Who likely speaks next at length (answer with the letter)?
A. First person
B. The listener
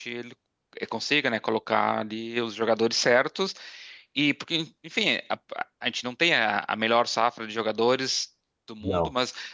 A